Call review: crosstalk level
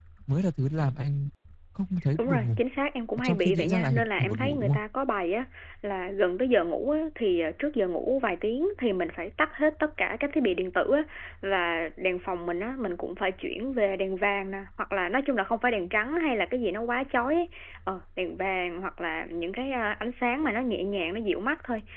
present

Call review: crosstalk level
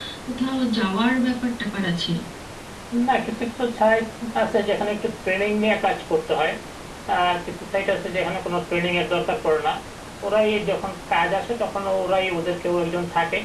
none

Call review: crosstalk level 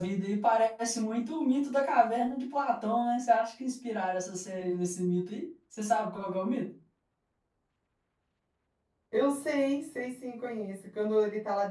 none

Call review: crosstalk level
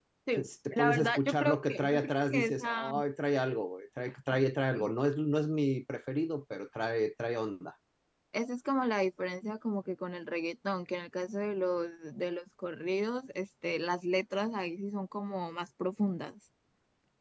present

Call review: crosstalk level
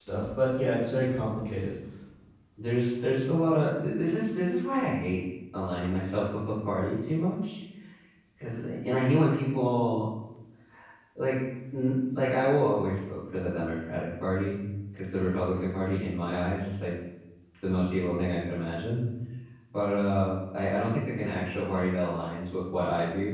none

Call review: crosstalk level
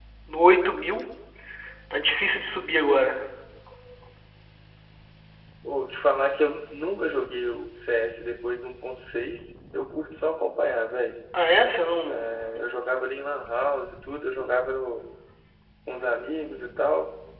none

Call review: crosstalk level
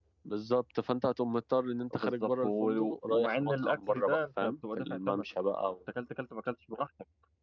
present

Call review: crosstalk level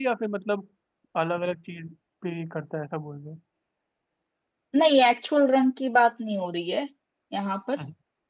none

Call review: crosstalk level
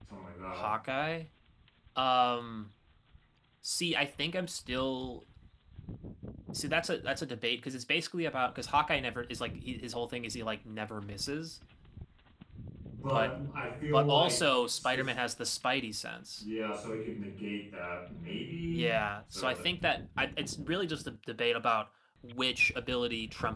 present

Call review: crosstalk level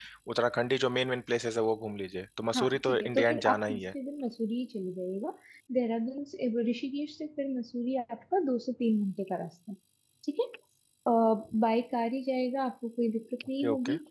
present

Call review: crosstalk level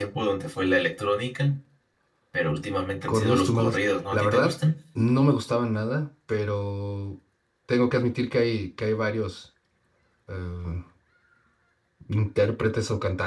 present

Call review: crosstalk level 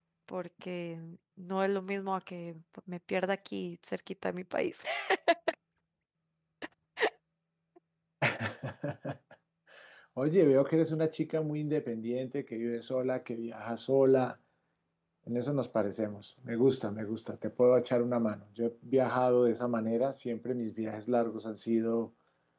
none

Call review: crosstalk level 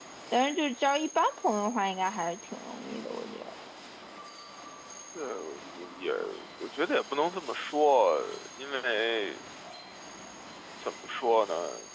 none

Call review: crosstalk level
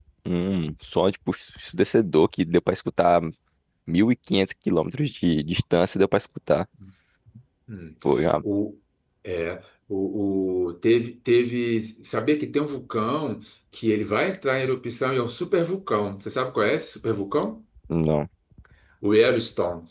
none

